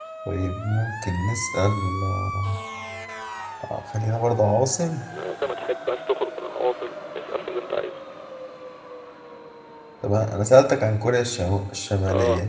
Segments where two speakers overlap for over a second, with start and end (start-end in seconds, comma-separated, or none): none